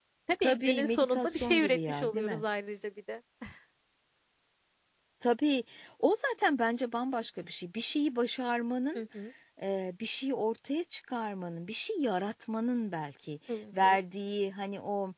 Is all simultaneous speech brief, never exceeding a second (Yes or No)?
No